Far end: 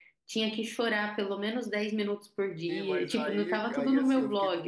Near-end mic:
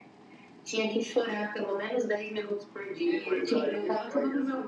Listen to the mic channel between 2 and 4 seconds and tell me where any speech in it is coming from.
echo only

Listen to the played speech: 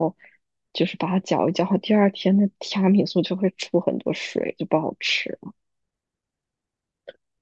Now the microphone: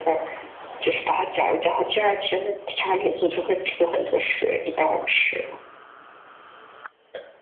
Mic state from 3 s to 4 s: echo only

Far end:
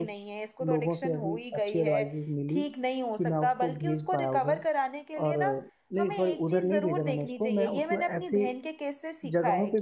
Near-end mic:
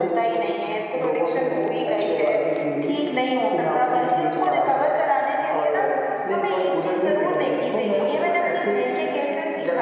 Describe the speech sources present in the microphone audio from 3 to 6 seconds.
echo only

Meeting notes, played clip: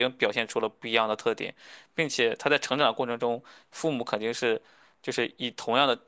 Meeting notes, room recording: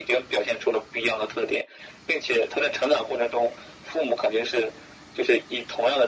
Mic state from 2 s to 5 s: echo only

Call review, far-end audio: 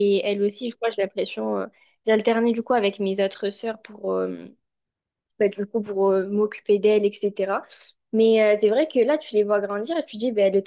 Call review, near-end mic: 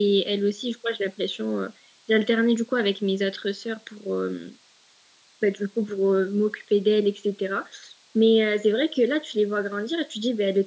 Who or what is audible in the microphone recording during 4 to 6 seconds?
echo only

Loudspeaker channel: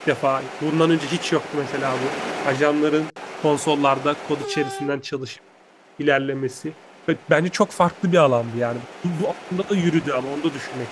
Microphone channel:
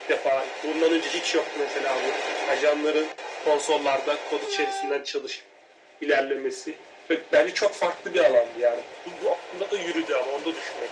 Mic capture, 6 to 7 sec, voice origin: echo only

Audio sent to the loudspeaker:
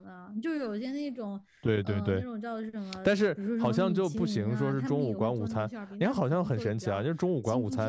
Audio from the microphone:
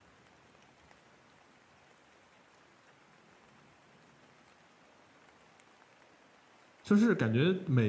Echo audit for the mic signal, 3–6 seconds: neither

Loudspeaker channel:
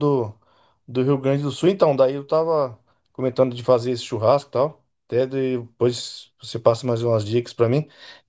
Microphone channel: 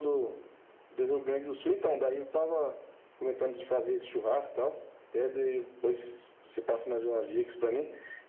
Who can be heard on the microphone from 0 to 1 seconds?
echo only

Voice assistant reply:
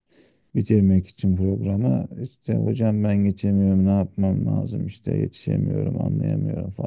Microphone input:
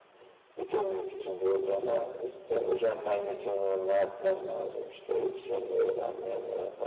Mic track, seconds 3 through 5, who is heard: echo only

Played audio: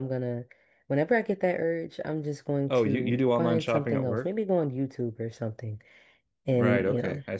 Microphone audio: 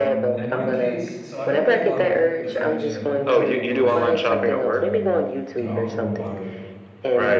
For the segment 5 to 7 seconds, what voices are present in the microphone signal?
both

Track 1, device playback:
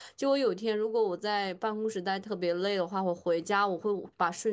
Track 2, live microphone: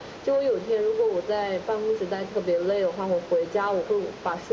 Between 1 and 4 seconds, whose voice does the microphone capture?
echo only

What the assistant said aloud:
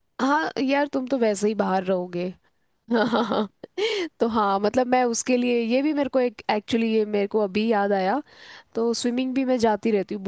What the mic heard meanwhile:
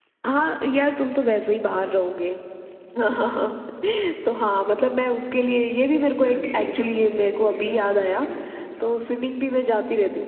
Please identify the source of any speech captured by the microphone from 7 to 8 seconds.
both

